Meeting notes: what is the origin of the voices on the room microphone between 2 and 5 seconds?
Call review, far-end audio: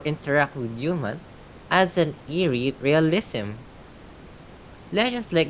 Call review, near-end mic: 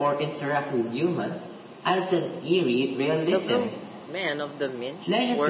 both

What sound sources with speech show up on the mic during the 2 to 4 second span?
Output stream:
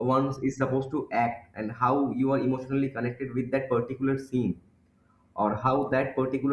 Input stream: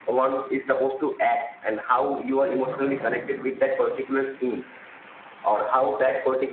both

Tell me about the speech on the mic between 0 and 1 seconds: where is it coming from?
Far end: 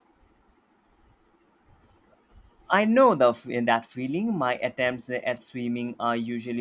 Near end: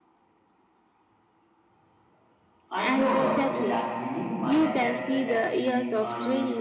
neither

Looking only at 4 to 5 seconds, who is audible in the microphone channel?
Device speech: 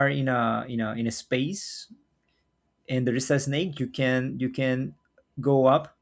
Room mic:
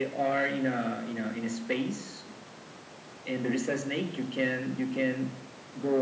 echo only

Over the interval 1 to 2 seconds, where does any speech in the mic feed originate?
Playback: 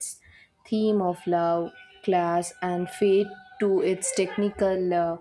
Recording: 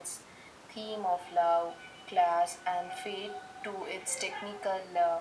echo only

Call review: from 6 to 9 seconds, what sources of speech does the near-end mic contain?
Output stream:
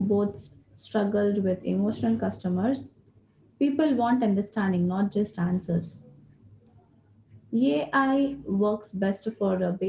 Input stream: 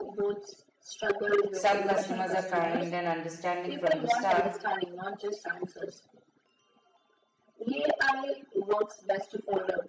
echo only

